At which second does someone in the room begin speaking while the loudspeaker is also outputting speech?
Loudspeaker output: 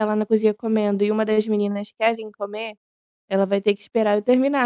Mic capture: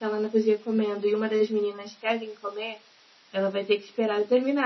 none

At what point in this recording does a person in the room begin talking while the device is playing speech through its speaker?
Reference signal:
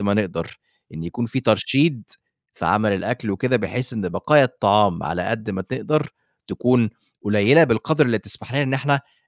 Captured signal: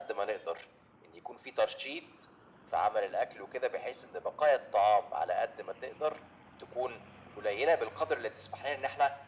none

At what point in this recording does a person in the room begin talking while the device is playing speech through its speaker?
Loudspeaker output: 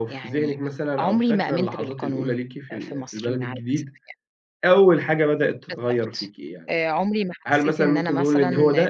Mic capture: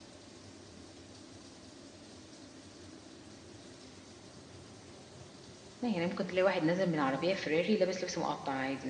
5.8 s

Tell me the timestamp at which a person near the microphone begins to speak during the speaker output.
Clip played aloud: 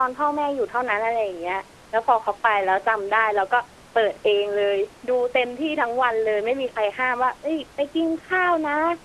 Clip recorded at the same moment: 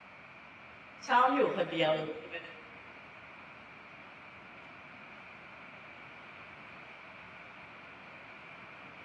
1.1 s

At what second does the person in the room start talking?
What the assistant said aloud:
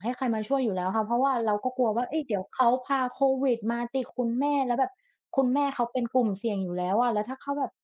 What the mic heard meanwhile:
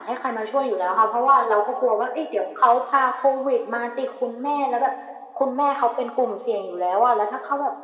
none

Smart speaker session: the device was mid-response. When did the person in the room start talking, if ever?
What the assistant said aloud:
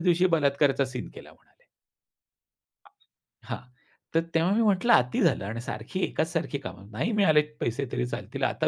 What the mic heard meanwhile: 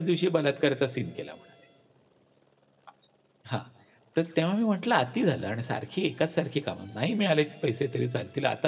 none

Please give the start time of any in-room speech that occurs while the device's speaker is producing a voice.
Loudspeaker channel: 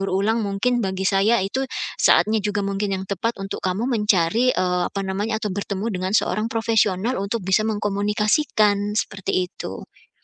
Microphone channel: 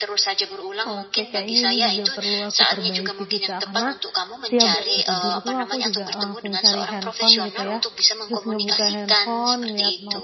0.9 s

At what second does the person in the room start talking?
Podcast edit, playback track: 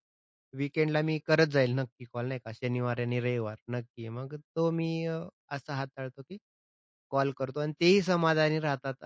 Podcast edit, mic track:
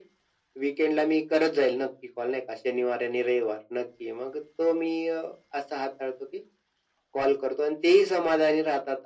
none

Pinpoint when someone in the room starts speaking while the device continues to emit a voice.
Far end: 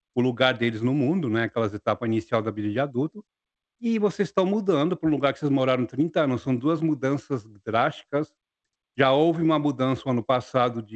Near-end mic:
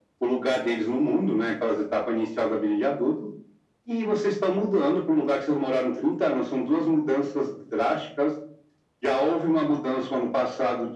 none

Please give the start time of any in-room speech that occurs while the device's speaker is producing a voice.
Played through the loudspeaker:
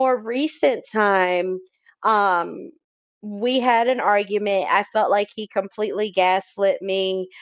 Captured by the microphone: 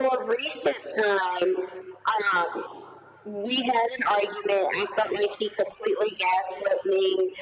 none

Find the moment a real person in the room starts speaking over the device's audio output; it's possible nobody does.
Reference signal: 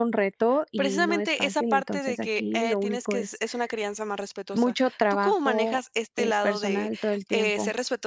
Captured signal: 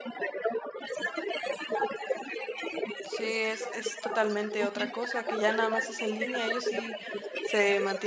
3.0 s

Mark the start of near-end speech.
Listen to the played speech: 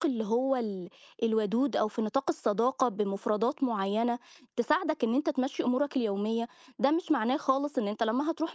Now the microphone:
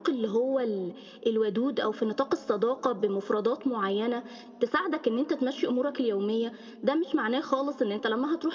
none

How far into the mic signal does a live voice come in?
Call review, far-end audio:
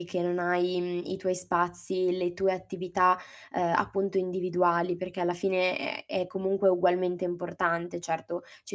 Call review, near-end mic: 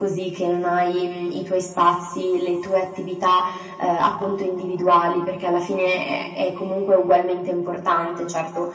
none

